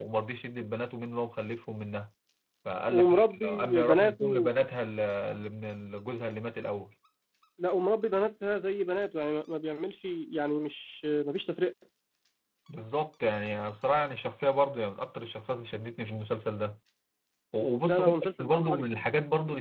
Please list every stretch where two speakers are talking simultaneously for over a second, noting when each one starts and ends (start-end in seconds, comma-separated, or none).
2.9-4.3